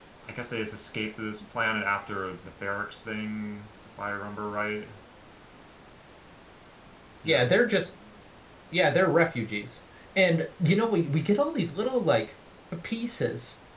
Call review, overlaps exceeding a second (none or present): none